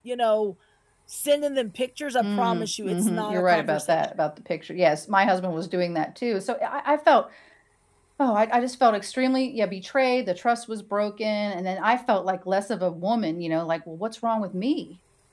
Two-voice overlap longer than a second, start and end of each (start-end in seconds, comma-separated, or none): 2.2-4.0